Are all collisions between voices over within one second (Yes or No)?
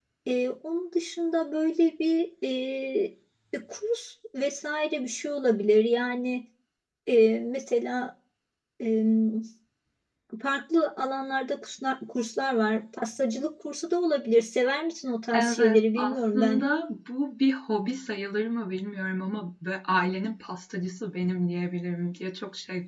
No